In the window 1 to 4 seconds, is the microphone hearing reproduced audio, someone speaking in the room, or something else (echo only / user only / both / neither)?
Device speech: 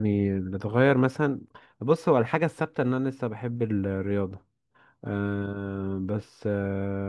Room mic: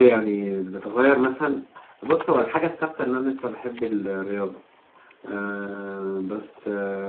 echo only